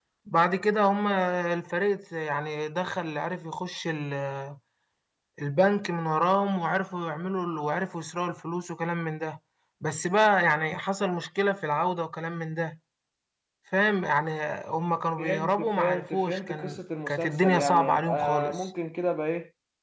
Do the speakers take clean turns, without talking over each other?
No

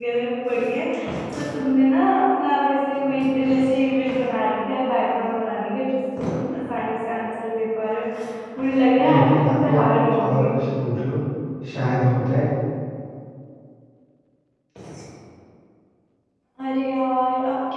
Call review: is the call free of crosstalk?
No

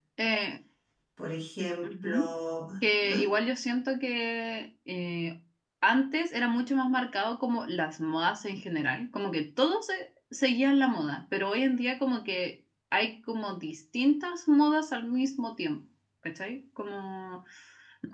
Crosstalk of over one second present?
No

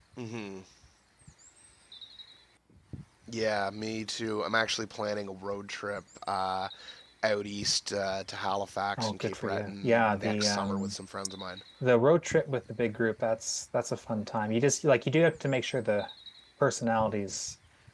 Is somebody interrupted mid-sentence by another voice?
Yes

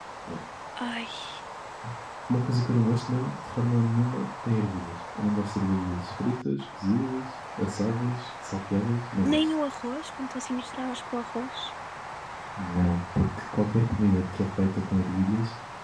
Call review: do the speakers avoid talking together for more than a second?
Yes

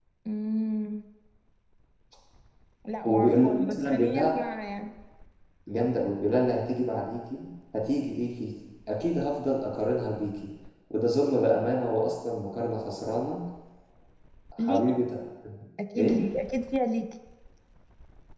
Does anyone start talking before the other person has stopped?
Yes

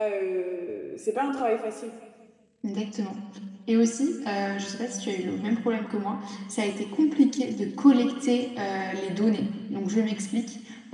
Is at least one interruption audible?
No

